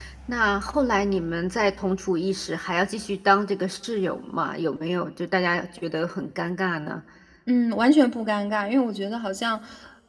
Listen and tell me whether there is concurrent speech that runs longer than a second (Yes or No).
No